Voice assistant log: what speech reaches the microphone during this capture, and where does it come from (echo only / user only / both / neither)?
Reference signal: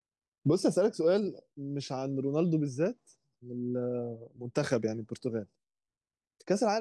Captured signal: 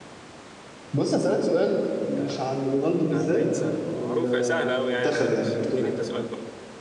both